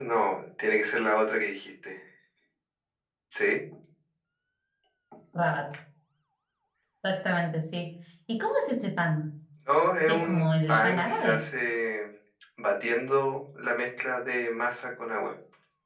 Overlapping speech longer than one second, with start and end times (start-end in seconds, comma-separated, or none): 10.1-11.4